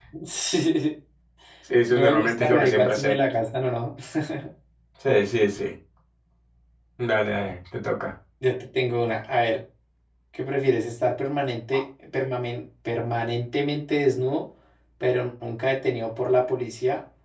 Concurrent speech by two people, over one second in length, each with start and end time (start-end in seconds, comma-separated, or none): 1.9-3.2